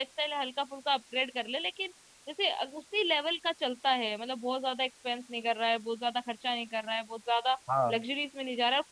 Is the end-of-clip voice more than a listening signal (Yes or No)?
No